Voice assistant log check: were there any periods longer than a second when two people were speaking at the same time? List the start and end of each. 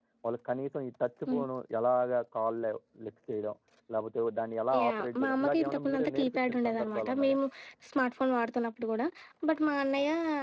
4.8-7.4

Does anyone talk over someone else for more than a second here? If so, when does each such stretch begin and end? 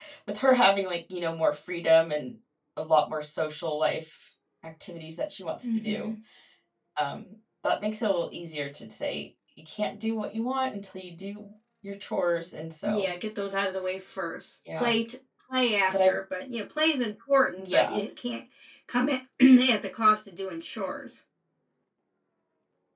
none

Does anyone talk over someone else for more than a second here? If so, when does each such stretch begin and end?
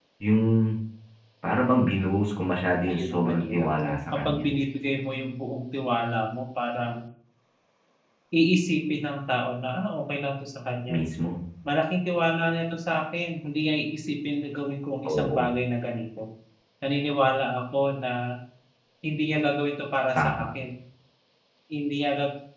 2.9-4.5

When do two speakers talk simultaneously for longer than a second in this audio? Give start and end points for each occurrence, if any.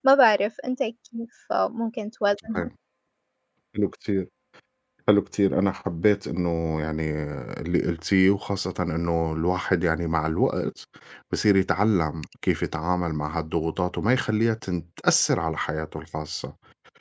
none

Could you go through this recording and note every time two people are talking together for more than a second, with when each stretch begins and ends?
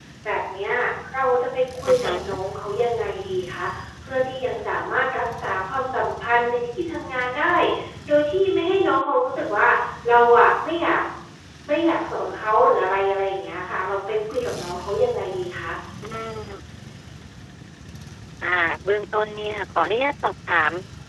none

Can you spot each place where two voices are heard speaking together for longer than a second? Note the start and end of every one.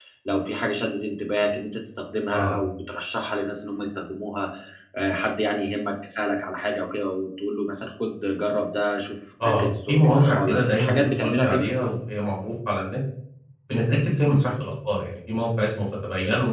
9.4-11.7

